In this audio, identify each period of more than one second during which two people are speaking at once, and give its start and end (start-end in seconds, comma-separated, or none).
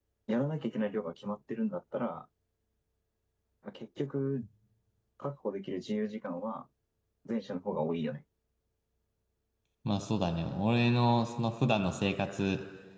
none